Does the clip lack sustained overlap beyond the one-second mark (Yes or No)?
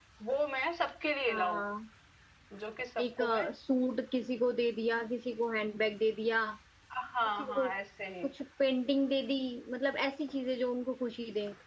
Yes